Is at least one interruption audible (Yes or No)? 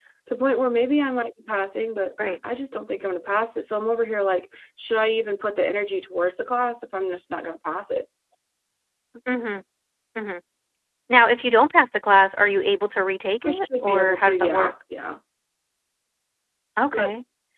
Yes